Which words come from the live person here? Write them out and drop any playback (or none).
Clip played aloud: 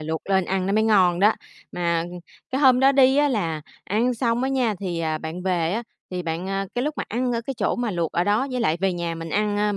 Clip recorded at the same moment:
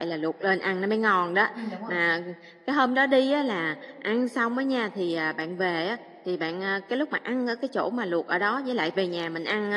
Ừm, đúng rồi.